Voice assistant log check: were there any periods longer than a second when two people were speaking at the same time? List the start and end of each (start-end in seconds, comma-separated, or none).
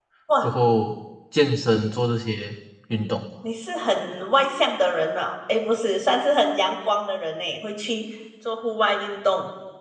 none